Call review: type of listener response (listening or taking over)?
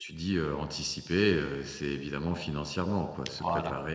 listening